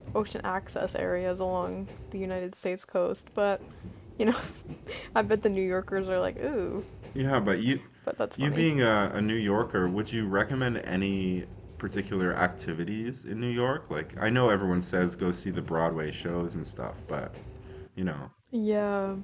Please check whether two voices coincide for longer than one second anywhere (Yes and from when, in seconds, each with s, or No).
No